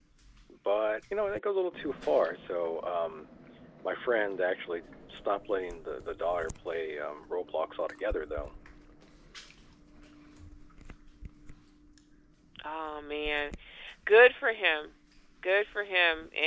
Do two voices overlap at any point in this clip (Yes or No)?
No